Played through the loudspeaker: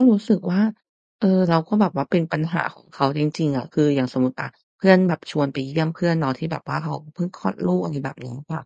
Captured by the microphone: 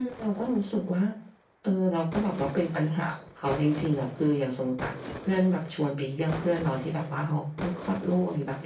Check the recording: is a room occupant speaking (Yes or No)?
No